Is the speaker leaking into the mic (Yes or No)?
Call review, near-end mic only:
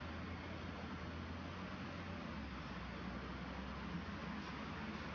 No